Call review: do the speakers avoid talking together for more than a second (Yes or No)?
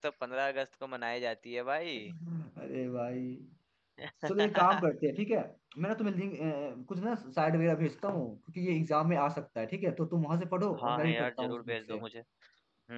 No